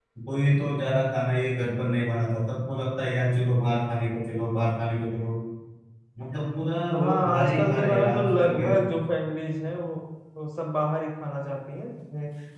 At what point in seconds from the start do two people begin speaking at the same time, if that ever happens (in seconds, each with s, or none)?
6.9 s